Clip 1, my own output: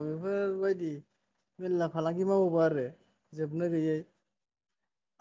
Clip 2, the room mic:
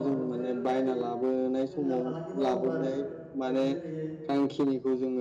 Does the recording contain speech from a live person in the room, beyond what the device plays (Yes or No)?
Yes